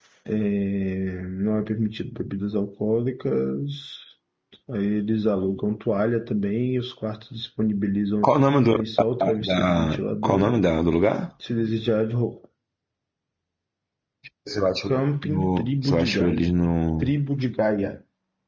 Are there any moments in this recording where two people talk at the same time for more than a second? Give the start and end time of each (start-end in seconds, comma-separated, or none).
9.2-10.6, 15.2-16.5